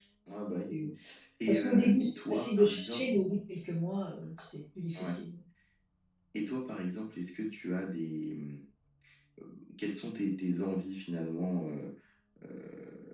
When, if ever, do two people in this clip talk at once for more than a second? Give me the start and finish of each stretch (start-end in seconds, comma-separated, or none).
1.5-3.0